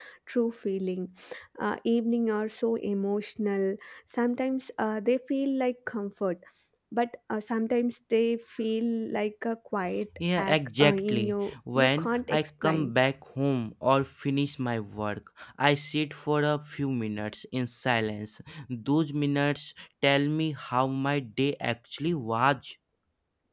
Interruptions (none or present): present